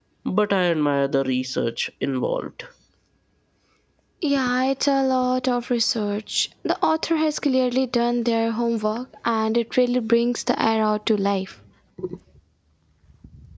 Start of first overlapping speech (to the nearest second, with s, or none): none